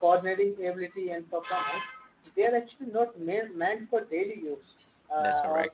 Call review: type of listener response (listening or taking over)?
listening